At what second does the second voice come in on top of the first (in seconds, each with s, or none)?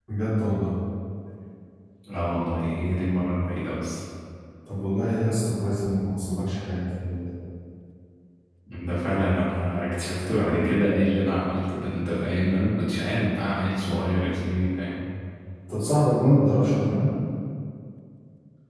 none